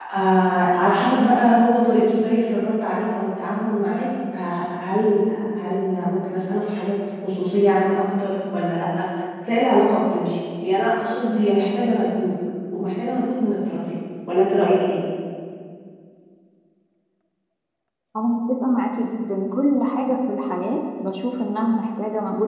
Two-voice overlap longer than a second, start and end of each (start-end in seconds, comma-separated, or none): none